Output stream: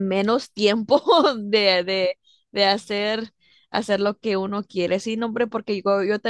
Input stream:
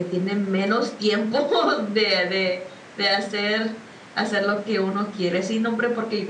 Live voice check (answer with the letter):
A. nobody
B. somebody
A